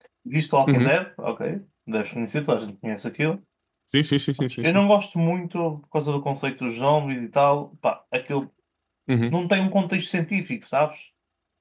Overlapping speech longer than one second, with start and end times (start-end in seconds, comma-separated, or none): none